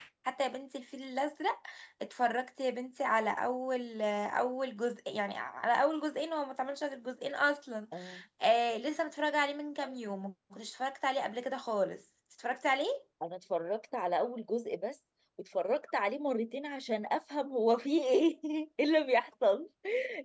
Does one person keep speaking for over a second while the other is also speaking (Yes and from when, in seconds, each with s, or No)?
No